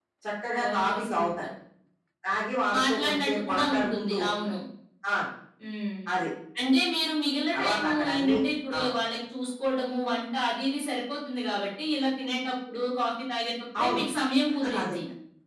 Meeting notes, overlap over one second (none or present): present